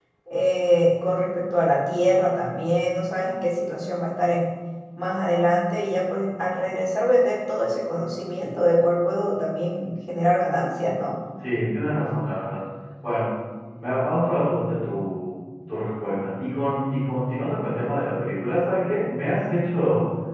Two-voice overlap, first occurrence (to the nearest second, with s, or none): none